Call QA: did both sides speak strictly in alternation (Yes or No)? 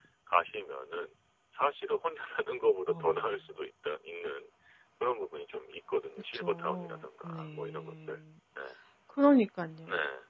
No